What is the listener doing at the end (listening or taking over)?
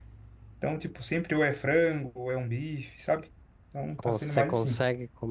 taking over